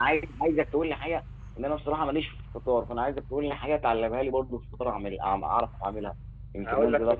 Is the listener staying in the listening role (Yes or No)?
No